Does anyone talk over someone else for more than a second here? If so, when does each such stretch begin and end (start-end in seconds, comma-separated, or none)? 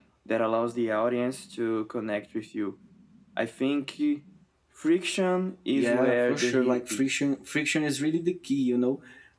5.7-7.1